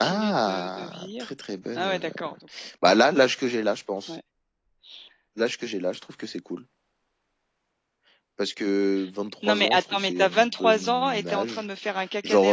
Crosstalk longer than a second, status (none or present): present